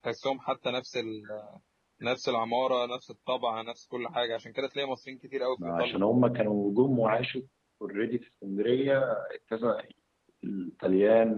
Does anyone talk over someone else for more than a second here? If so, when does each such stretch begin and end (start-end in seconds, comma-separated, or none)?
none